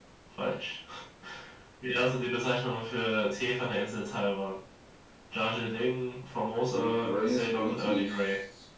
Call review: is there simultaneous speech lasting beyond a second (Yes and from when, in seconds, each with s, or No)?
Yes, from 6.6 s